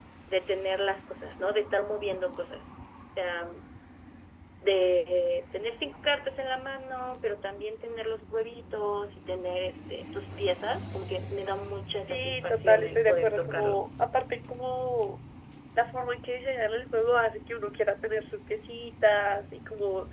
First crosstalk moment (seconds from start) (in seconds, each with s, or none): 12.1 s